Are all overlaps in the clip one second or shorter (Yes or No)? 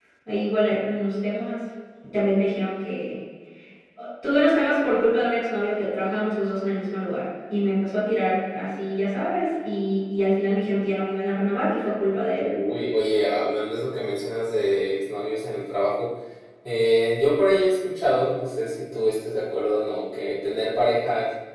Yes